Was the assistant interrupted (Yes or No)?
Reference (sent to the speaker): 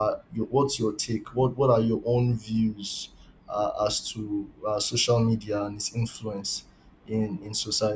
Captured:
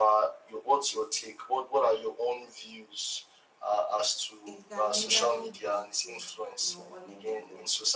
Yes